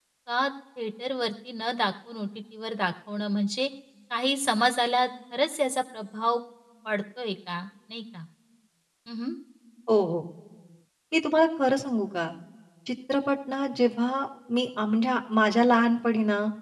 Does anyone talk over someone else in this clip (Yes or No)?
No